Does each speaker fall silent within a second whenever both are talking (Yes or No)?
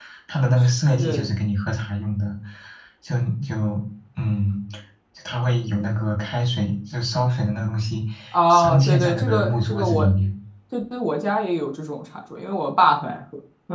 No